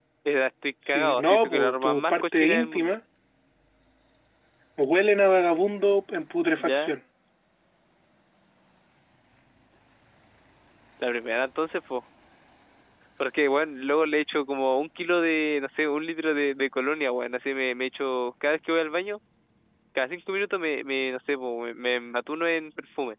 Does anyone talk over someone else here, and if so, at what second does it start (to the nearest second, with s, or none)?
1 s